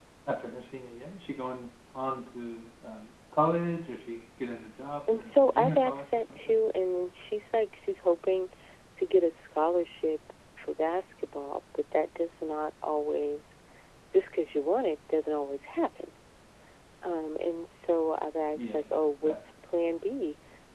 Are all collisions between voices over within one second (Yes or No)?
No